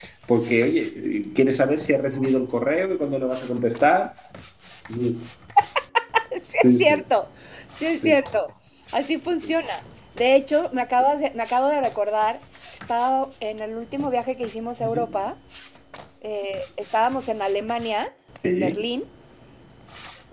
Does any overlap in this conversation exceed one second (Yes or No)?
No